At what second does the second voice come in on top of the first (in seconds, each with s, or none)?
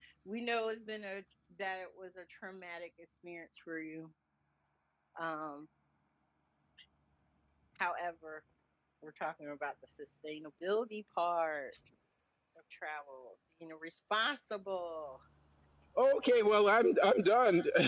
none